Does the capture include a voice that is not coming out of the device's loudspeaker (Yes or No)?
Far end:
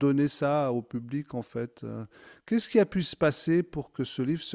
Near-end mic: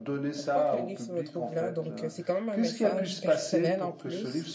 Yes